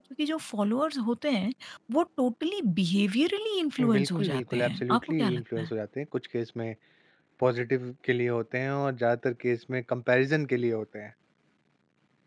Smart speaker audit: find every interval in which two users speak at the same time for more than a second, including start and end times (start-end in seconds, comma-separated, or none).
3.9-5.7